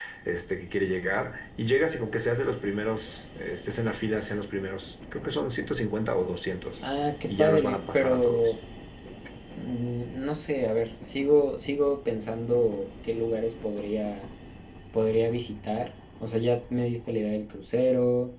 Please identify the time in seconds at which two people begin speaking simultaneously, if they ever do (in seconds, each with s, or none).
7.3 s